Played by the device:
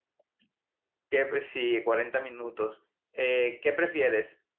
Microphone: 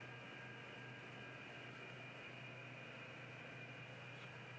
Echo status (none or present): none